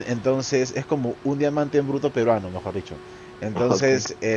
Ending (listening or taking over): listening